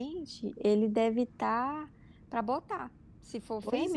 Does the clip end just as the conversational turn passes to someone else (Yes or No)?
Yes